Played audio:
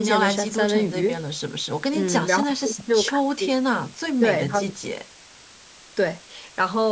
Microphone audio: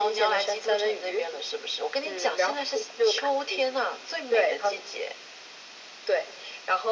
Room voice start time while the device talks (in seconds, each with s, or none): none